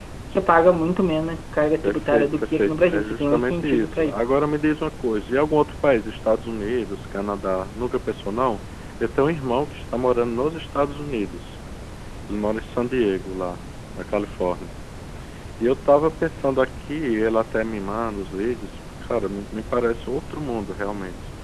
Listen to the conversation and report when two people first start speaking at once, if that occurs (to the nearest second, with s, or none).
2 s